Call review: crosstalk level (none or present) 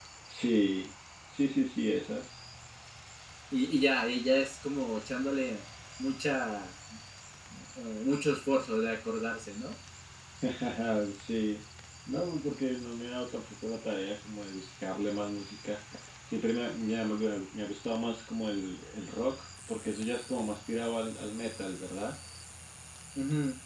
none